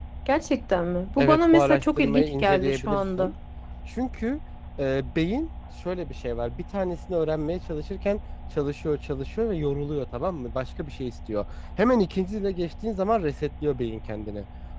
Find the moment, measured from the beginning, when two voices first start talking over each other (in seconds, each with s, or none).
1.2 s